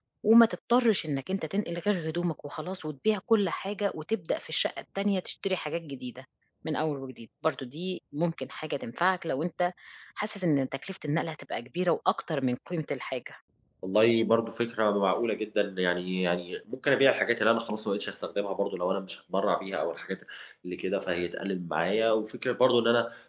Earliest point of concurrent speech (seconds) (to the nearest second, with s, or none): none